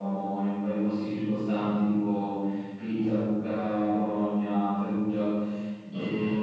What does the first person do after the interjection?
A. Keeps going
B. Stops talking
A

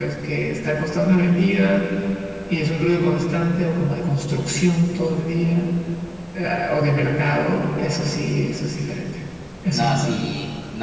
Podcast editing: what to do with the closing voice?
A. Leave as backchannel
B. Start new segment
B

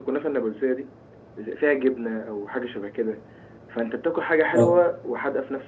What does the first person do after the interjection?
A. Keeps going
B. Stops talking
A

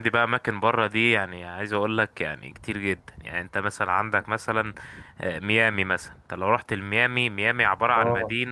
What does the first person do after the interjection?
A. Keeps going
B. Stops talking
A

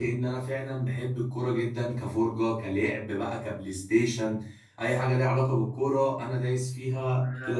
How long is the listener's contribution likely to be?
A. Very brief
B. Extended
B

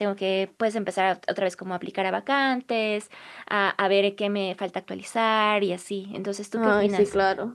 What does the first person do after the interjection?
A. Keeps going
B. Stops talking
B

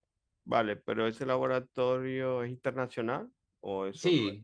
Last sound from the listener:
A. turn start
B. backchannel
A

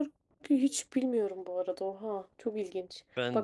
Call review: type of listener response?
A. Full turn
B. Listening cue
B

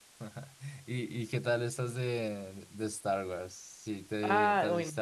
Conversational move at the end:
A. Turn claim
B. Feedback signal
A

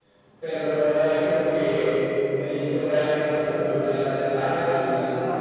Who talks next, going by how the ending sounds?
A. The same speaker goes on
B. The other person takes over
A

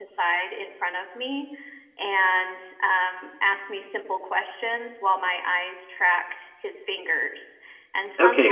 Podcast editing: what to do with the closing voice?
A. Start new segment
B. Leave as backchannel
A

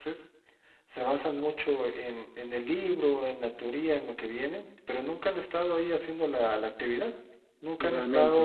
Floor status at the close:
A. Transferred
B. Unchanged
B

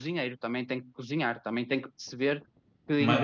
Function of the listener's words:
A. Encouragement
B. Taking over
A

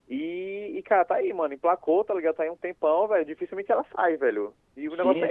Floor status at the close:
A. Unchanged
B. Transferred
B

